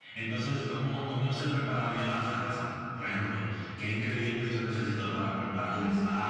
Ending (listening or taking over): listening